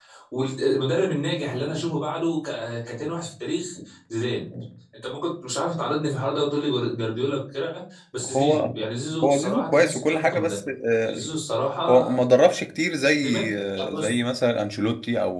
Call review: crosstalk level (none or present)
present